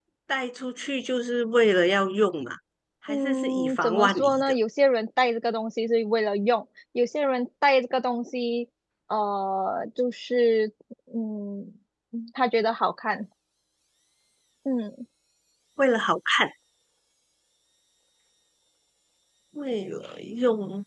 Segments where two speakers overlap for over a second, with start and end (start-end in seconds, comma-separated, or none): 3.1-4.5